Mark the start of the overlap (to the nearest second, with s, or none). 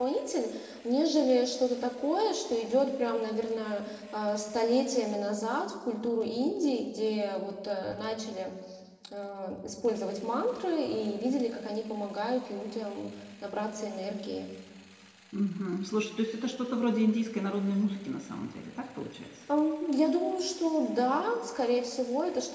none